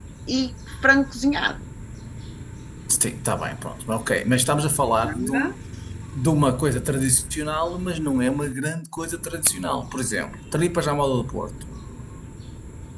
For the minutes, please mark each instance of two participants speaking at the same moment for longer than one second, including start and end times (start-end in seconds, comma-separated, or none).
none